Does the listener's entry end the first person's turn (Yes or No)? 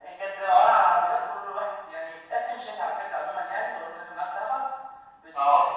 No